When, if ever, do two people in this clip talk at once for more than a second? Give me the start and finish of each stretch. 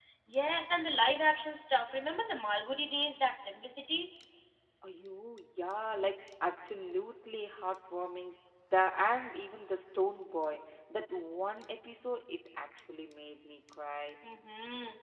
none

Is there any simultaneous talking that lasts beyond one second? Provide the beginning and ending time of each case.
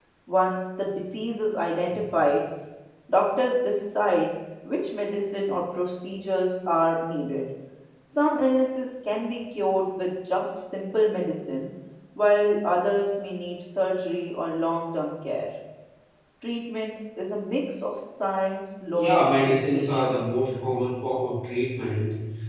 18.9-20.2

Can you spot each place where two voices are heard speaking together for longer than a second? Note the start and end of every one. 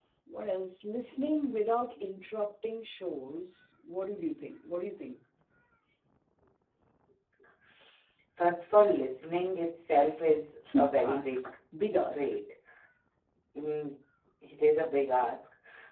none

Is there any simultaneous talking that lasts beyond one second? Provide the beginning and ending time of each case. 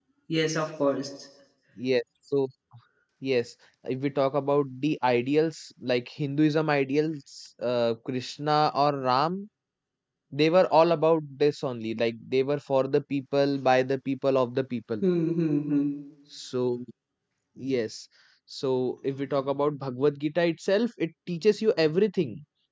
none

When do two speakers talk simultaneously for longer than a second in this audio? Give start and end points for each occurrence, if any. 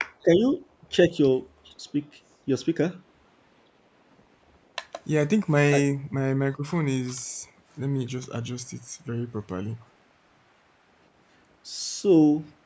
none

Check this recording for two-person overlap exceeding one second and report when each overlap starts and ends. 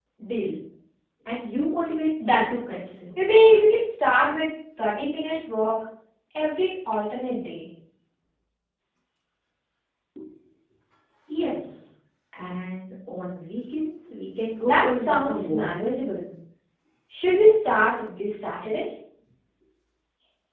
14.6-16.0

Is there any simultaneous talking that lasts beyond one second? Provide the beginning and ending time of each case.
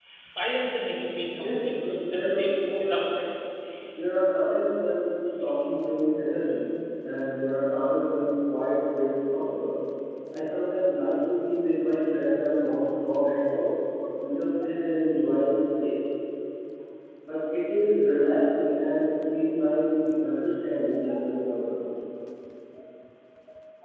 1.4-3.1

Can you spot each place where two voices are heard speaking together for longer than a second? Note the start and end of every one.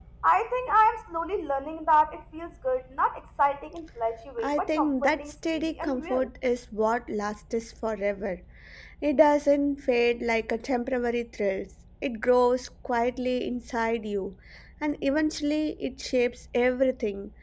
4.4-6.3

